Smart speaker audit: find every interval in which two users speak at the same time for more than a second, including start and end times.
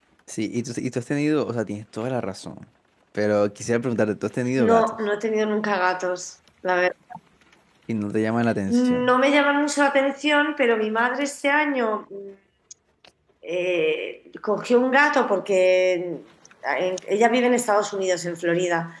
none

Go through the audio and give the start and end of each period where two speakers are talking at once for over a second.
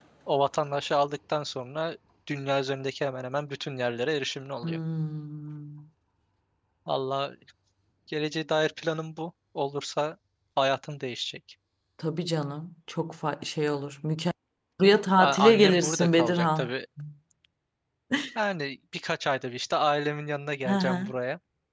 15.2-16.7

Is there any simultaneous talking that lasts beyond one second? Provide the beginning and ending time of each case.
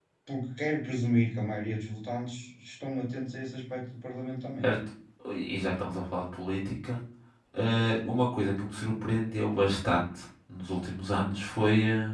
none

